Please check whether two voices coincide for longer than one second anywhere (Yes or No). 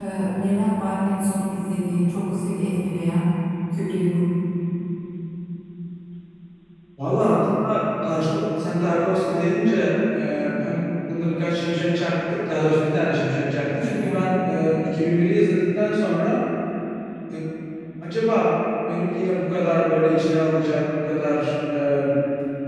No